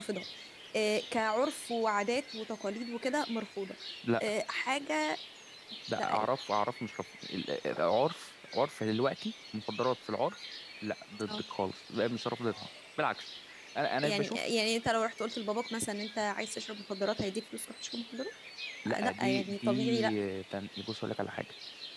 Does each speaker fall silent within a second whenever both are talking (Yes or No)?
No